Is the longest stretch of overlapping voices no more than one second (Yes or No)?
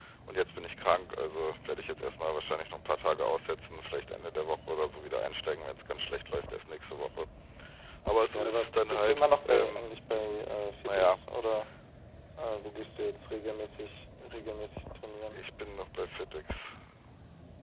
No